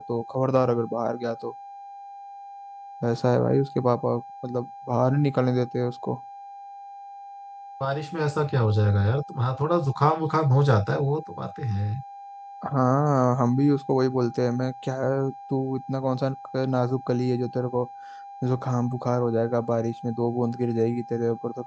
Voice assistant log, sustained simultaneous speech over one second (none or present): none